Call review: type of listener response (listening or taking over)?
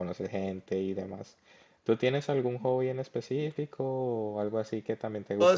taking over